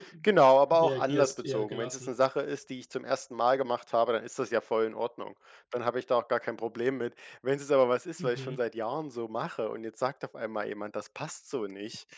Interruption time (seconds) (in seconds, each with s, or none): 0.7 s